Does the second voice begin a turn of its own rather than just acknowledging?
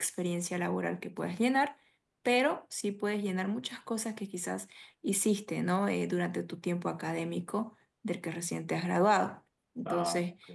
No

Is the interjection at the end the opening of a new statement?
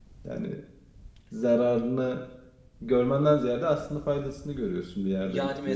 Yes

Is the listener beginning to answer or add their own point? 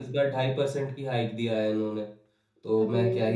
No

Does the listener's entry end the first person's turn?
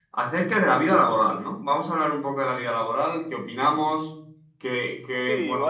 Yes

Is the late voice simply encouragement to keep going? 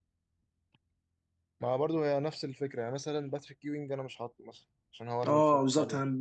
No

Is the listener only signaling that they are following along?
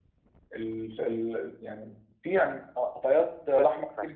No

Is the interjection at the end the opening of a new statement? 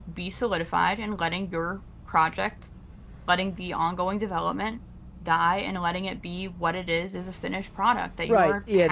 Yes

